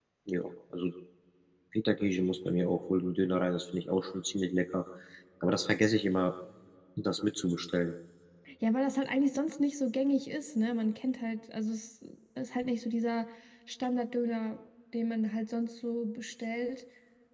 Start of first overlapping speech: none

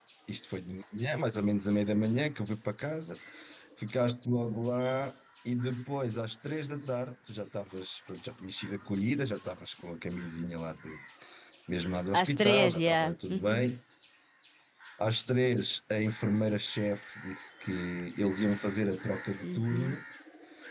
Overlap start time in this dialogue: 12.1 s

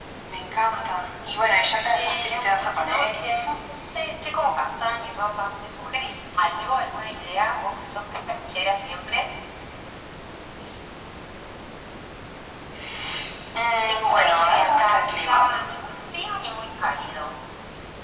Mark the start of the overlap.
1.9 s

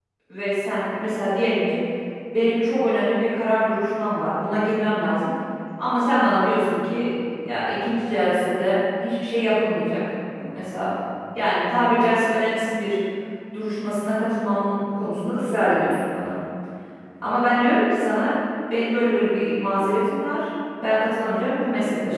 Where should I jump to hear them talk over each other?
none

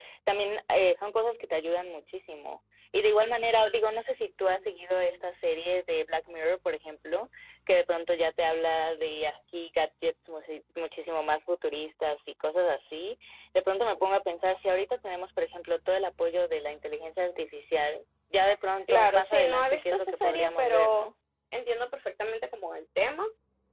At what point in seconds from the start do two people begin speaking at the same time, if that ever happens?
18.9 s

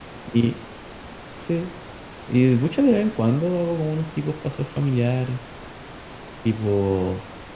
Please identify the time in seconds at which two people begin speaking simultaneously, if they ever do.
none

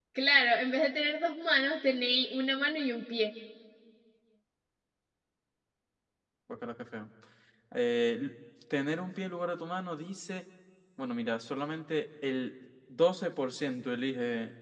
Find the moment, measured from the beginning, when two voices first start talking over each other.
none

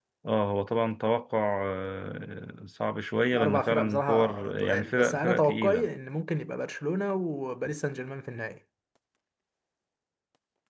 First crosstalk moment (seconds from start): 3.3 s

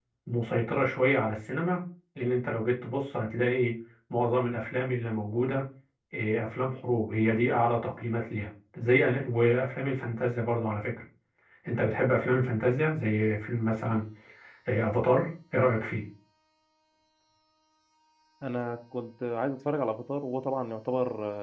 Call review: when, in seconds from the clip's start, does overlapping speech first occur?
none

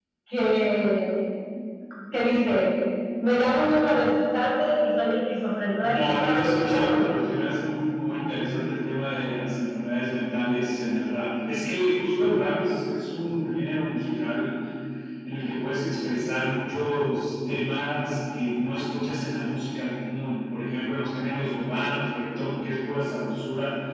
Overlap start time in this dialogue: 5.8 s

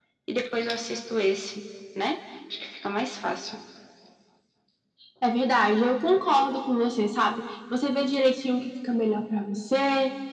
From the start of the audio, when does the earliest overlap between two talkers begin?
none

